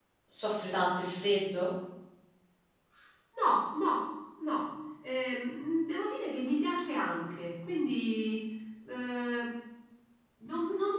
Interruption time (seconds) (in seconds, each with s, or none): none